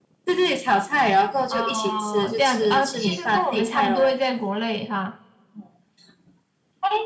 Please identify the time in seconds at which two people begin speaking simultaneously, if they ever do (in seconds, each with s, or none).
1.5 s